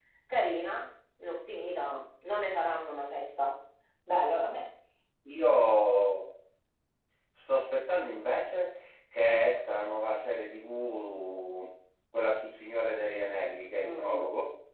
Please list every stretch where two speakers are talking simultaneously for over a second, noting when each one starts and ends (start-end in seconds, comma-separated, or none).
none